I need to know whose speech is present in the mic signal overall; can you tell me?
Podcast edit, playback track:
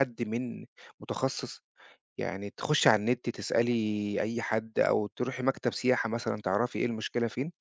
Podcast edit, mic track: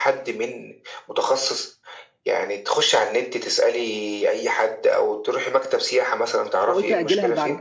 both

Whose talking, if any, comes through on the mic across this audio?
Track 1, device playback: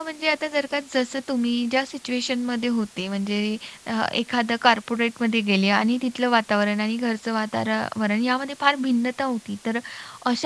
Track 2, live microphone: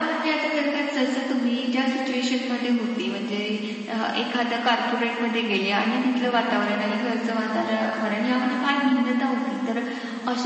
echo only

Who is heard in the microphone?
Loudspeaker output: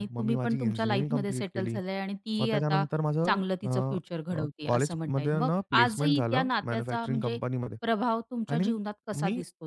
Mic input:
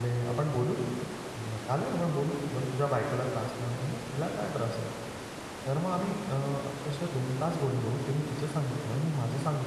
user only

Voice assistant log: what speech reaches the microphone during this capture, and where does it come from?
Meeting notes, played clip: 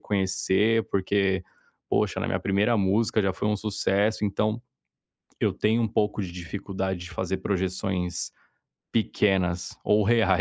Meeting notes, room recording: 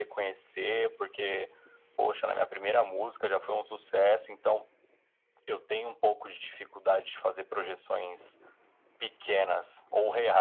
echo only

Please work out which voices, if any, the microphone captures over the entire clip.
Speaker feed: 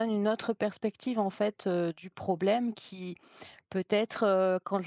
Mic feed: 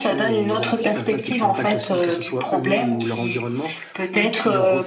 both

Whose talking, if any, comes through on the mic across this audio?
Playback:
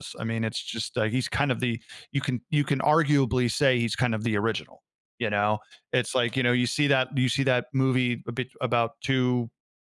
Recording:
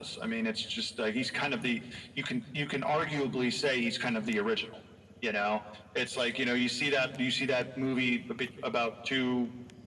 echo only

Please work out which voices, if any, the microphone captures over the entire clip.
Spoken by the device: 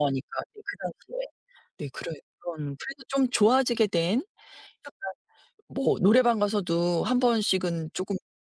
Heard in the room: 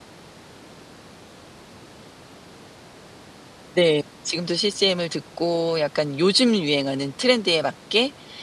user only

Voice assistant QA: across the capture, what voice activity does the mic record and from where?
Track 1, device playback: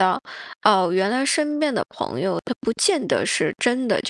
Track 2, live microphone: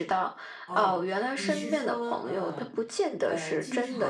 both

